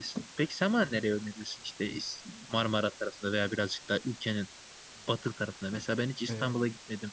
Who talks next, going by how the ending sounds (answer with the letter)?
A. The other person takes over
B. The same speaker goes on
B